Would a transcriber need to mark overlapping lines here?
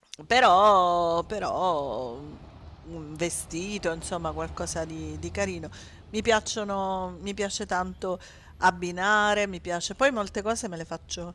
No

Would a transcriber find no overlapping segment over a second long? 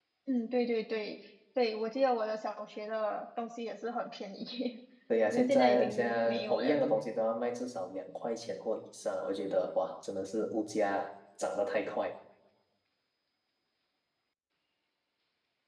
No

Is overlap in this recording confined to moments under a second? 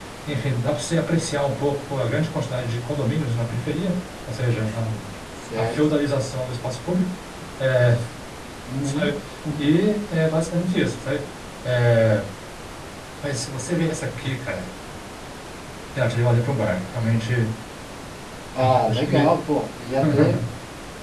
Yes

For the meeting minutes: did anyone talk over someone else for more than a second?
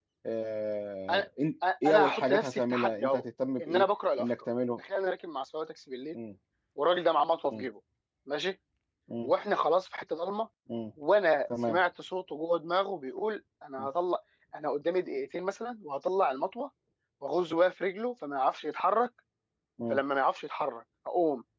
Yes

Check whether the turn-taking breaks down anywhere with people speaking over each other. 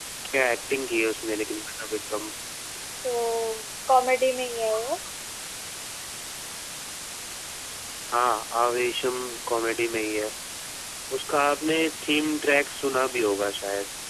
No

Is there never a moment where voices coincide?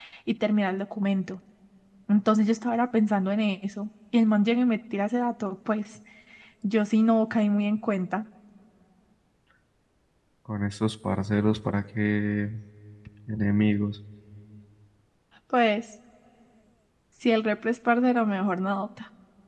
Yes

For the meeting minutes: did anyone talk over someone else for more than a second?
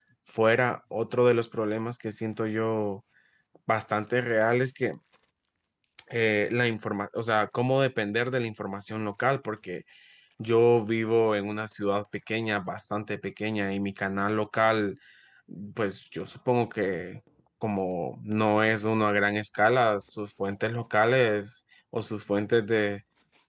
No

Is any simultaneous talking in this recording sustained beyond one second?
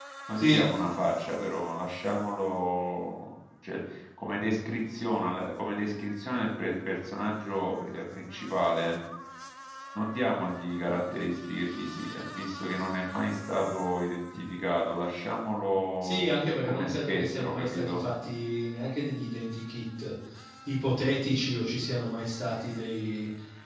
Yes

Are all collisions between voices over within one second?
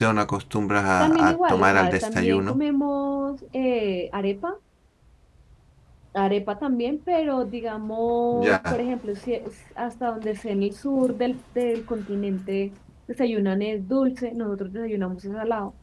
No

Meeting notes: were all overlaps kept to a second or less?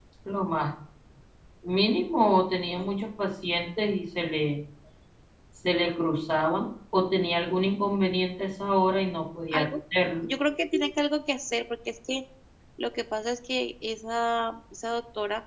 Yes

